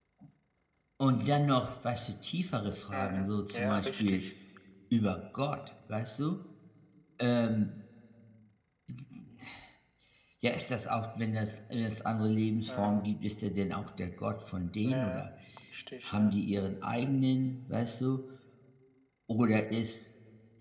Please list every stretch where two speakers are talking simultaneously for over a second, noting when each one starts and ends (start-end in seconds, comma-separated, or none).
2.9-4.2